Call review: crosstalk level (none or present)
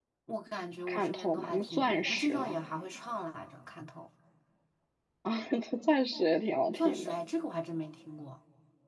present